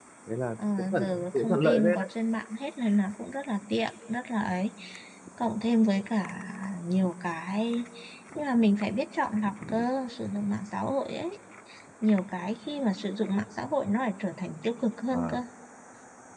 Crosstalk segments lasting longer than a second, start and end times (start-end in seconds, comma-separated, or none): 0.8-2.1